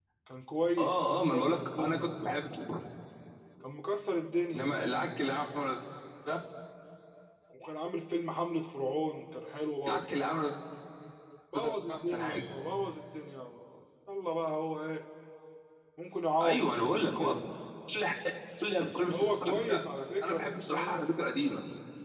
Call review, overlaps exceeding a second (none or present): present